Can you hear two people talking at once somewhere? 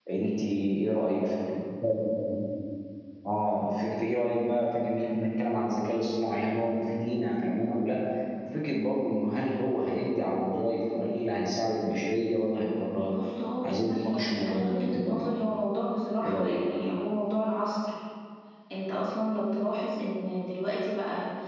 Yes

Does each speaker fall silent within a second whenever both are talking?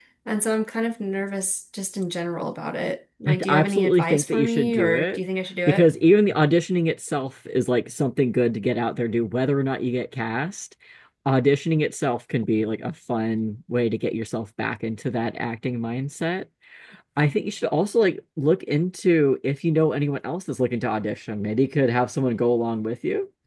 No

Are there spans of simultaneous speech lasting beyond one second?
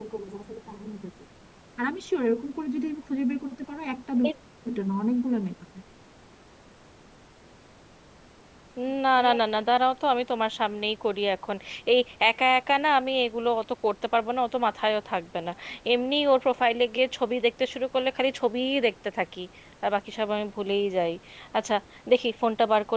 No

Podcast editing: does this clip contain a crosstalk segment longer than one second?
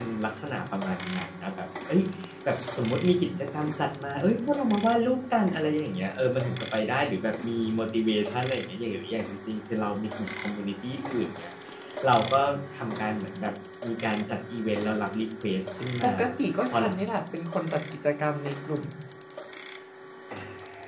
No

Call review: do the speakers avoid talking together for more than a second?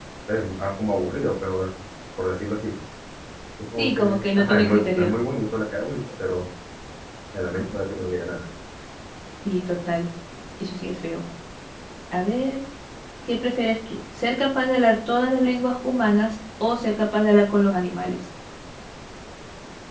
No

